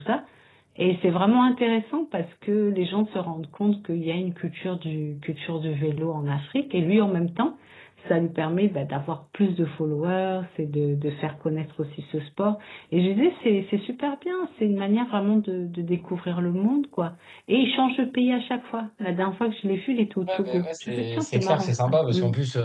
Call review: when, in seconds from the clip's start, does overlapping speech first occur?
20 s

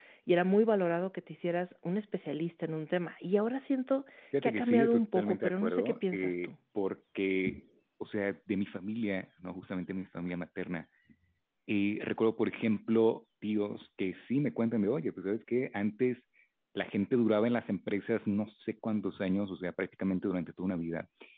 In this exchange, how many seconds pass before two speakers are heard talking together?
4 s

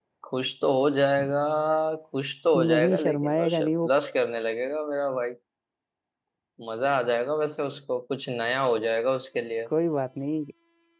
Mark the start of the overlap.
3 s

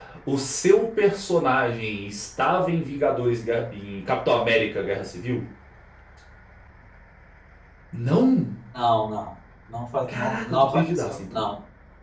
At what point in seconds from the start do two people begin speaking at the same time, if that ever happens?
10 s

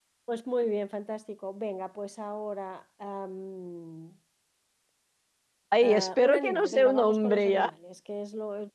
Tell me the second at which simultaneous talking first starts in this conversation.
6 s

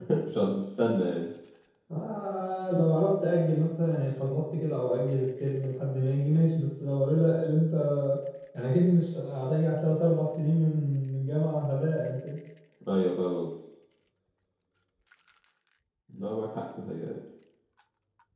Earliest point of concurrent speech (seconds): none

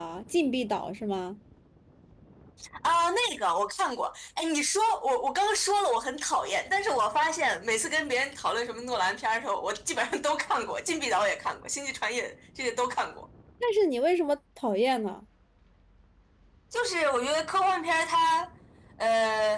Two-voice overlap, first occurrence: none

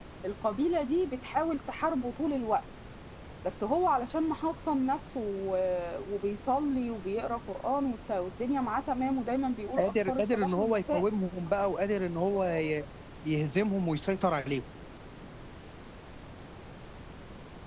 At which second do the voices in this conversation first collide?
10 s

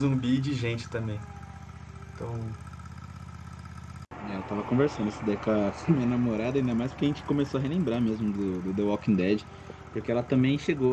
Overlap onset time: none

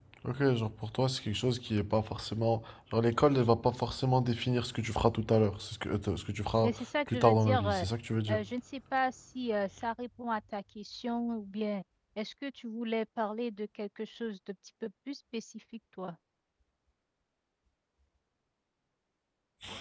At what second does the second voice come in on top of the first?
7 s

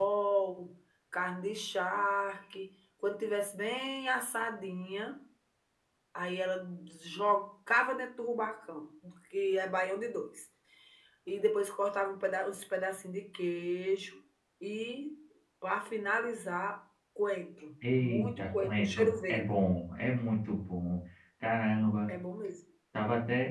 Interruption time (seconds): 18 s

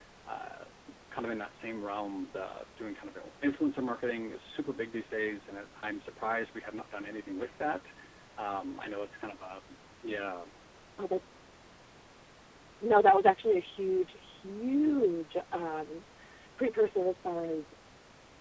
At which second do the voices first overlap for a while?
none

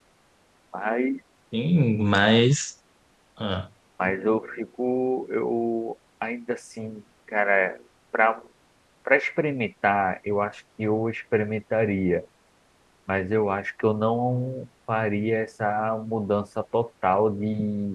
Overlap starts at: none

